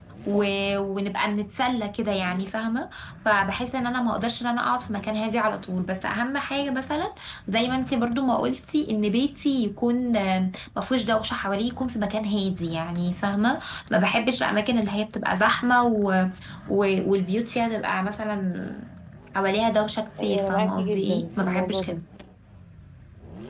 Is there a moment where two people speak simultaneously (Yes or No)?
Yes